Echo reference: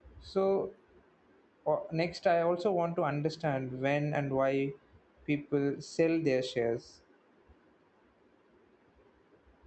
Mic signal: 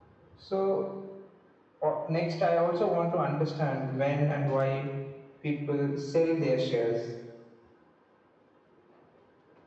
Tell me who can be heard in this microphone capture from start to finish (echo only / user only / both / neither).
echo only